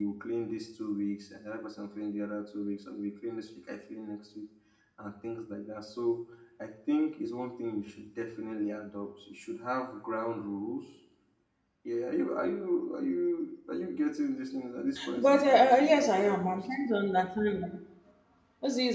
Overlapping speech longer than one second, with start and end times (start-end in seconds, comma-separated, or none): 15.2-17.0